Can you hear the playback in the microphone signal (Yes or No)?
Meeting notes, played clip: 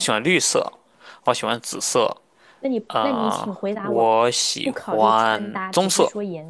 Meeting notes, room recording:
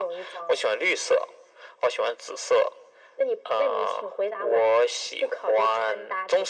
Yes